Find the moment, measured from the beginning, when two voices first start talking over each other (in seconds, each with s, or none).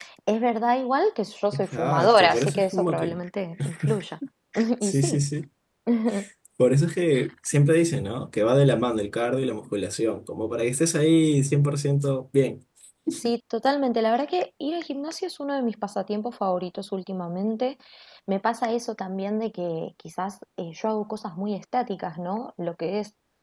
1.5 s